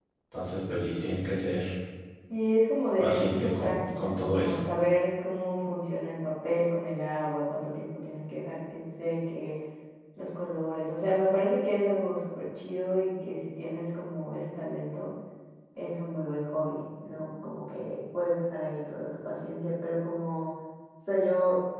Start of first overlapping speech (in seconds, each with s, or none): 3.0 s